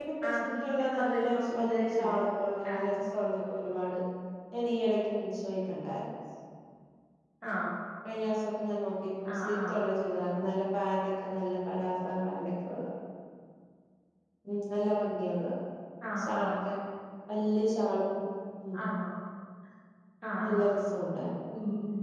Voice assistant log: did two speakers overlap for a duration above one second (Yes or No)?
Yes